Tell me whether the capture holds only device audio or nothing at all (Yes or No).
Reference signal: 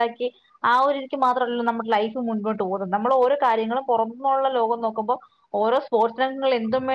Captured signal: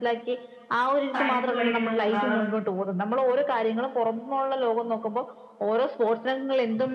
No